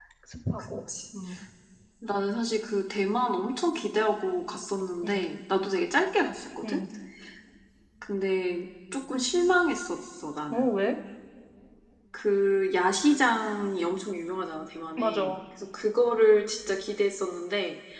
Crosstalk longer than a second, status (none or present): none